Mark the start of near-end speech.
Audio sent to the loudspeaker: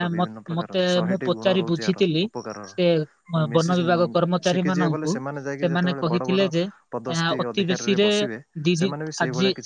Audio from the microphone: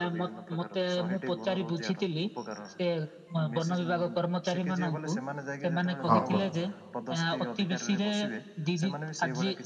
6.1 s

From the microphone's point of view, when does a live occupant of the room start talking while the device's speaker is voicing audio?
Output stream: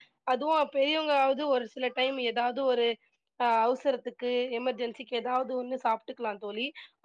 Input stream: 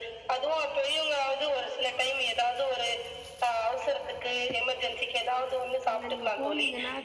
5.9 s

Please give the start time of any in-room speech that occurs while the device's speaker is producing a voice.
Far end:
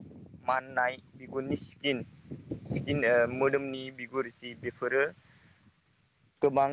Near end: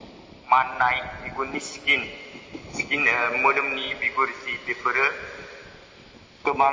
none

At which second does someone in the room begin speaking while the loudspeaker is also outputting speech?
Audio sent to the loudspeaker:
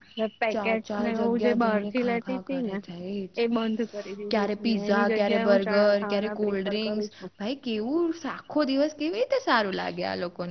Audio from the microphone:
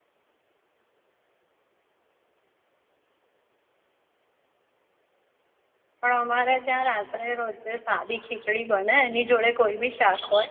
6.0 s

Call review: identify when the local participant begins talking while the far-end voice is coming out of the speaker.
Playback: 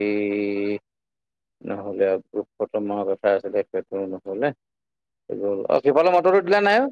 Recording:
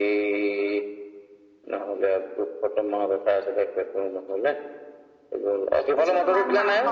6.0 s

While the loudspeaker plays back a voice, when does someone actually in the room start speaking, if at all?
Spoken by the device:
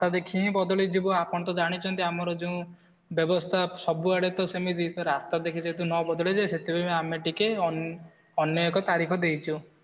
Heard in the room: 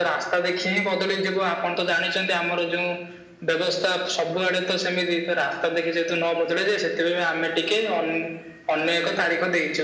none

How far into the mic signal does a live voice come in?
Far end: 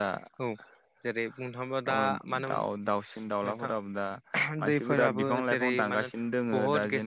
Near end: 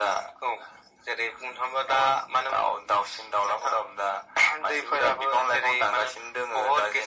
none

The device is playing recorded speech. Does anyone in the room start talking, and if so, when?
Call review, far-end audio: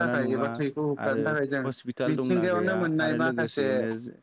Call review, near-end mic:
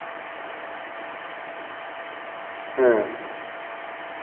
2.8 s

